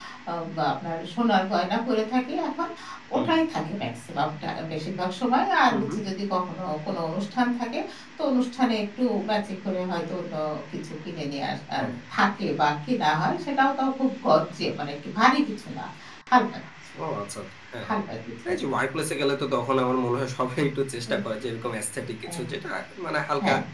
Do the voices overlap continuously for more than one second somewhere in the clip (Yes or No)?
No